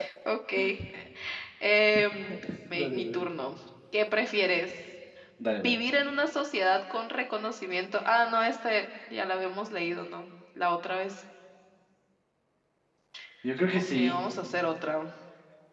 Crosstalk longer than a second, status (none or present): none